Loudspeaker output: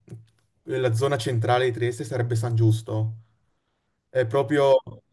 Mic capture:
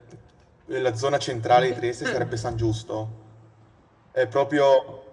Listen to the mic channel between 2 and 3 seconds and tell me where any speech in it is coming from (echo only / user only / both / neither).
both